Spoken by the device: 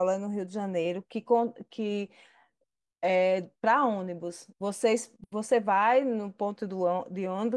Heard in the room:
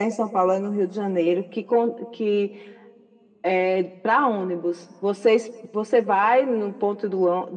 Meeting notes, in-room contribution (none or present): none